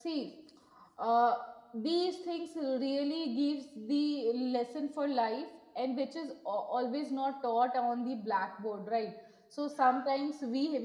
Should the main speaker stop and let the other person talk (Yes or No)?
No